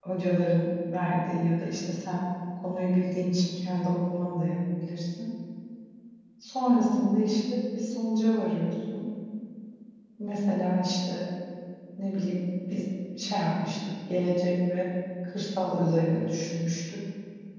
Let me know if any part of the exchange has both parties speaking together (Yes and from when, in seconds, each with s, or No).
No